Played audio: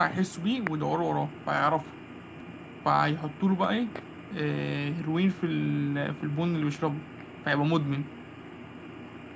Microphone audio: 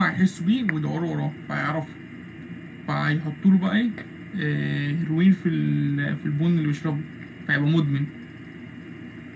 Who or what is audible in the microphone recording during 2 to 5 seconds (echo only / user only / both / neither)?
echo only